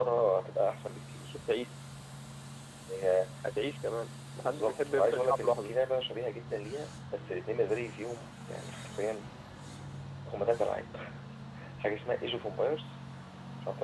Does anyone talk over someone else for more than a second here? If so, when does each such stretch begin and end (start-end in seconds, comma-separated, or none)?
4.4-5.8